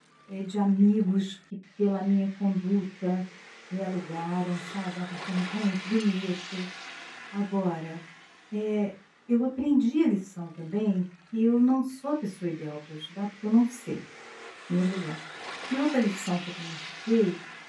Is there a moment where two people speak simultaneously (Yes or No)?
No